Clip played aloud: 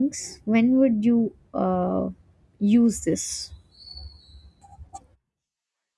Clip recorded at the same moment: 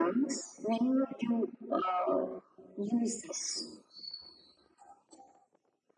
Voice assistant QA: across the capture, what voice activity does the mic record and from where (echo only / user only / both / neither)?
echo only